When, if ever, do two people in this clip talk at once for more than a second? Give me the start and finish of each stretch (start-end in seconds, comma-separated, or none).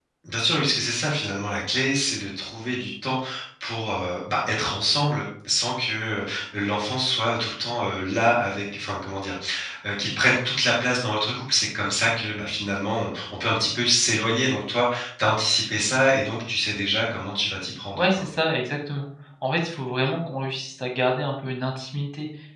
none